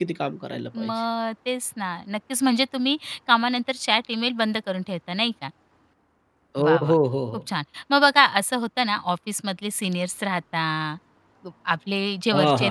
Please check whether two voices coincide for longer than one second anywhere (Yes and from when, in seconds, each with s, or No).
No